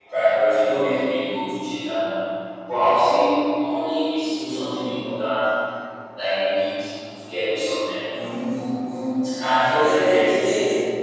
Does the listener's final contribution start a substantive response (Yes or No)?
Yes